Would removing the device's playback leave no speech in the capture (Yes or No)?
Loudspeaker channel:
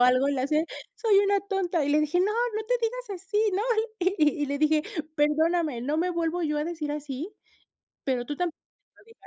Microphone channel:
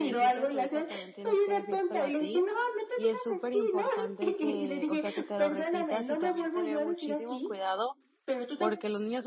No